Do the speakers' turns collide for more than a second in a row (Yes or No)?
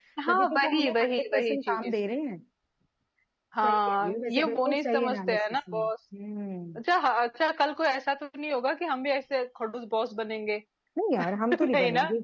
Yes